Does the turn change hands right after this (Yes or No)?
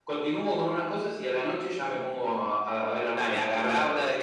Yes